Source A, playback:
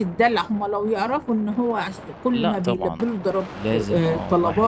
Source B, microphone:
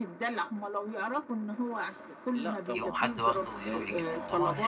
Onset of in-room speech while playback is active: 2.7 s

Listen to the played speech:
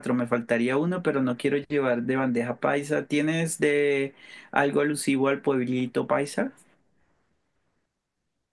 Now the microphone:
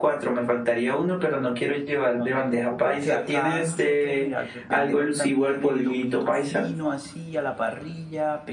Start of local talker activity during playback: 2.1 s

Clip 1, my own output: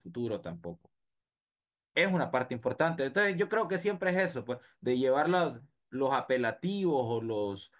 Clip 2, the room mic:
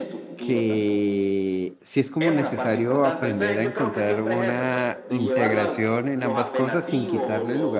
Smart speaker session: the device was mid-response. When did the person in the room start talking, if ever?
0.4 s

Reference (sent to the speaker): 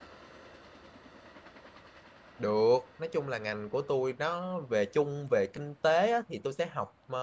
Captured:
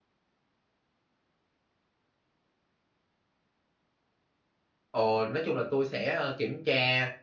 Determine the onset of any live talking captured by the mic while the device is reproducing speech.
4.9 s

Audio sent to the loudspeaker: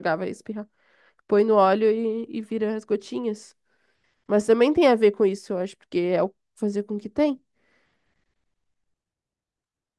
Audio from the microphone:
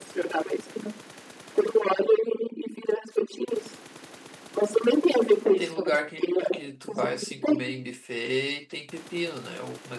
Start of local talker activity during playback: 5.4 s

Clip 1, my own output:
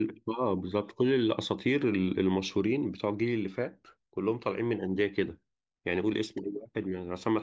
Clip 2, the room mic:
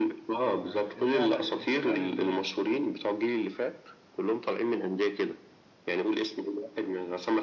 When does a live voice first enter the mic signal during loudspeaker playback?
0.3 s

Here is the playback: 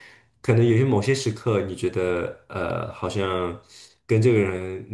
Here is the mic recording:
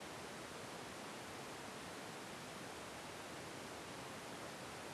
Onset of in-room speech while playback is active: none

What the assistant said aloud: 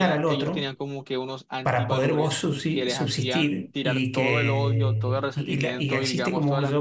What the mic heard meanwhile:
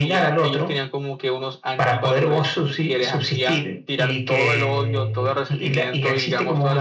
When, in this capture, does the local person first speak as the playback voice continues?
none

